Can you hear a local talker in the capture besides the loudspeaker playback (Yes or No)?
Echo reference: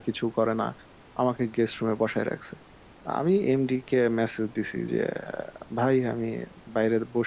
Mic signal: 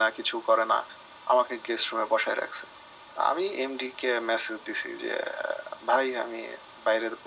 No